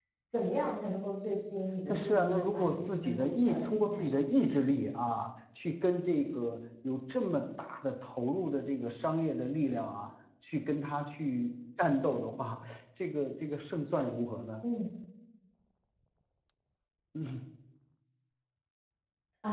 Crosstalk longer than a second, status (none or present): present